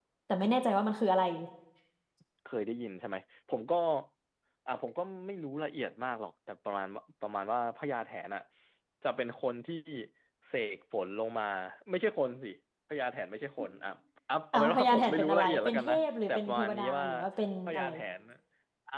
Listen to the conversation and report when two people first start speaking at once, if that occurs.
14.5 s

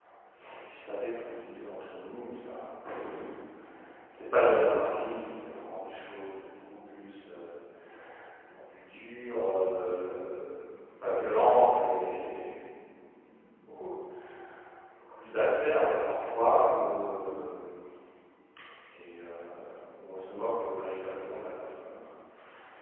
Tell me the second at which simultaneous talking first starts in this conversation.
none

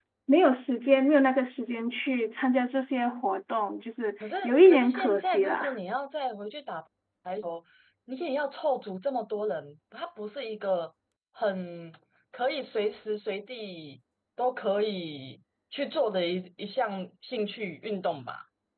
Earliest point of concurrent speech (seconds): 4.4 s

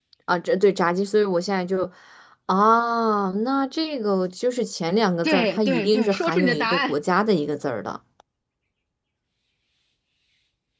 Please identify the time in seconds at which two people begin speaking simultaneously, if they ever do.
5.2 s

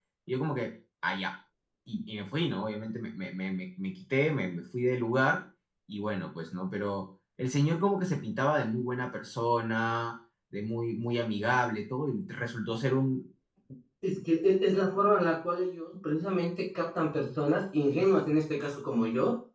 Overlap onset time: none

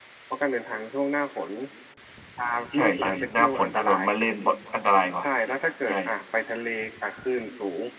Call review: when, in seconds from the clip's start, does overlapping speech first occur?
2.7 s

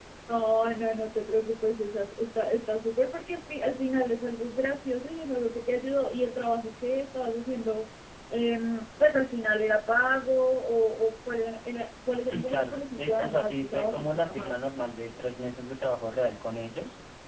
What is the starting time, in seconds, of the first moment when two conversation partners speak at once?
12.2 s

